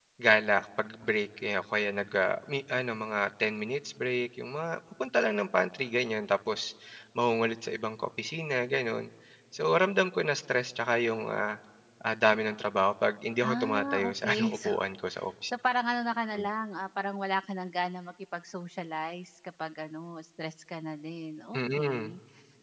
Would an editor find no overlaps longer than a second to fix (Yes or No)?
No